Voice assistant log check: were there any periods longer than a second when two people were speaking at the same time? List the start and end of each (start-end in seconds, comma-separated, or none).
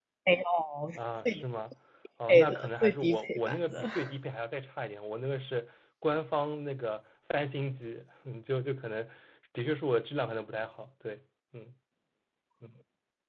2.3-3.9